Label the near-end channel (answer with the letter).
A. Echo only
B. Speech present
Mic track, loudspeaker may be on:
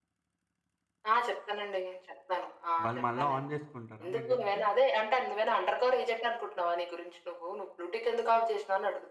B